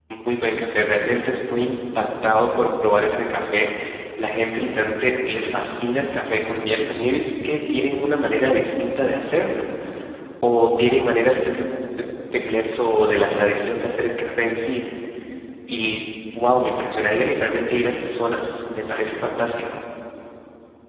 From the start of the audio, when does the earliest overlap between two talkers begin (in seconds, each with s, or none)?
none